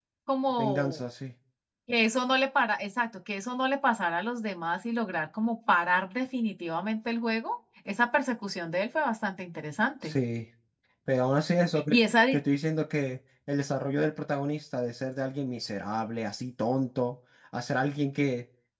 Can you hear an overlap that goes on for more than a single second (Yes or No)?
No